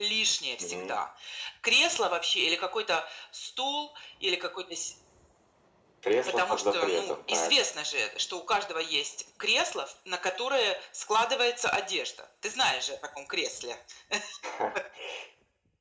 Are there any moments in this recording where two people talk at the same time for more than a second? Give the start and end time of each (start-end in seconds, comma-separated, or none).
6.2-7.5